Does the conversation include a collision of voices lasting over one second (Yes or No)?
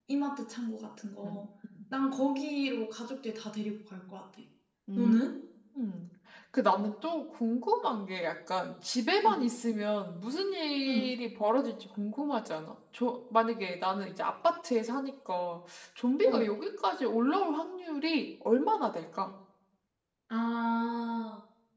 No